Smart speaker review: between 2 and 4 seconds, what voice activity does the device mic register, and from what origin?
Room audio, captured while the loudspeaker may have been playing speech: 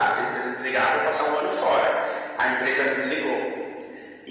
echo only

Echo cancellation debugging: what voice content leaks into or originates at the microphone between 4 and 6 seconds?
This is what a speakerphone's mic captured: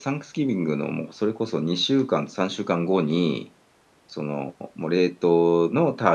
user only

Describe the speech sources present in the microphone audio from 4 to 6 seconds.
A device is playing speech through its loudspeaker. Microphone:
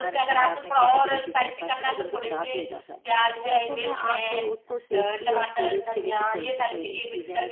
both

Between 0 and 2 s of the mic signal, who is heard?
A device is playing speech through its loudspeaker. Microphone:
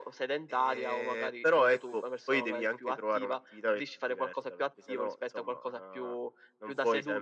echo only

